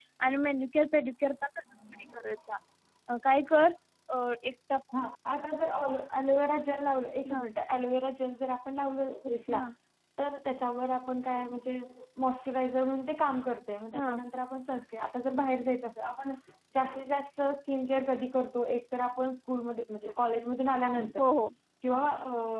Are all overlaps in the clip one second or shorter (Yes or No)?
Yes